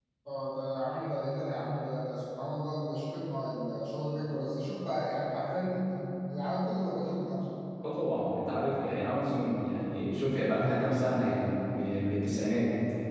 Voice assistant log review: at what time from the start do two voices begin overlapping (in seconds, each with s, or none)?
none